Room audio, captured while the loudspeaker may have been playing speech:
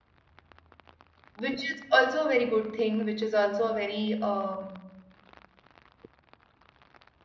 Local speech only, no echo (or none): which is also a very good thing, which is also a very, um,